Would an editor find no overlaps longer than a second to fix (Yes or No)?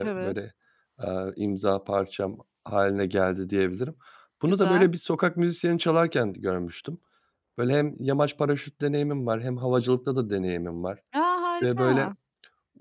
Yes